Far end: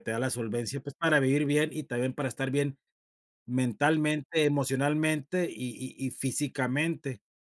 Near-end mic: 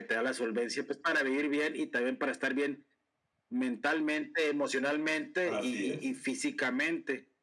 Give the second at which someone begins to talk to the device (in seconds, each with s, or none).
5.4 s